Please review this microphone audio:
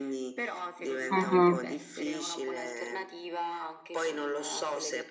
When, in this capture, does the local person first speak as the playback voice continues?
1.1 s

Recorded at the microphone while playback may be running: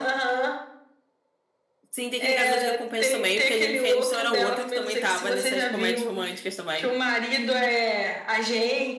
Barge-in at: 1.9 s

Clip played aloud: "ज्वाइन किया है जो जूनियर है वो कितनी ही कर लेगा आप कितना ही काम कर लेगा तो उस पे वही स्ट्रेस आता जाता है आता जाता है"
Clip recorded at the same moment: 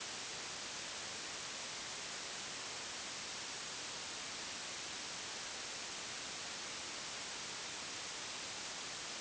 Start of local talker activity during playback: none

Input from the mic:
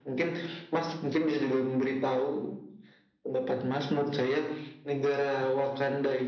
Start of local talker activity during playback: none

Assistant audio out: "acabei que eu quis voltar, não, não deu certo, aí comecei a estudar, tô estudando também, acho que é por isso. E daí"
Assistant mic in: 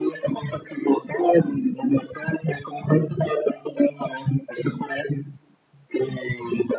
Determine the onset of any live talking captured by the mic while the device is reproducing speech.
none

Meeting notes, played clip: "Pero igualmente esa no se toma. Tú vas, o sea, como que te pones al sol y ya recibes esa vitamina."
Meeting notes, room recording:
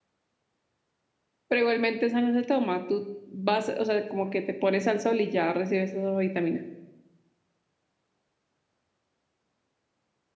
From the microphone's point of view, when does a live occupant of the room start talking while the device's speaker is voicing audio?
none

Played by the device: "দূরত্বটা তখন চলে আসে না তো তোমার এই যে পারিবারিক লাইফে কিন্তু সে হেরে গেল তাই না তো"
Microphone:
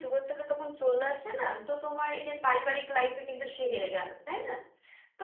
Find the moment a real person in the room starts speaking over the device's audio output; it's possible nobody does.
none

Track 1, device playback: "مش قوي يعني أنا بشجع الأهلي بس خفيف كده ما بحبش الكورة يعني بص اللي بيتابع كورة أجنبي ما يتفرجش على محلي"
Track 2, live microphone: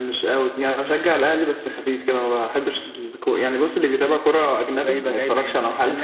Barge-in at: 4.7 s

